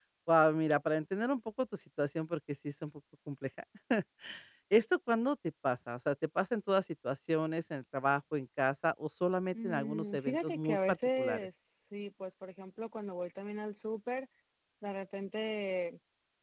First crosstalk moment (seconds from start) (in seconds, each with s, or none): 9.5 s